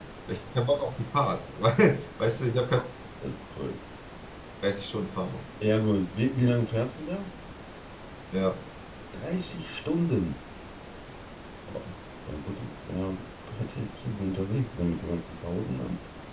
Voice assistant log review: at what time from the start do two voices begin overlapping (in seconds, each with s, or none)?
none